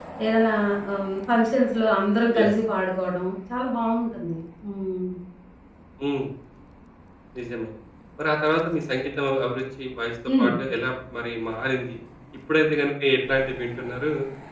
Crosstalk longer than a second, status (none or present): none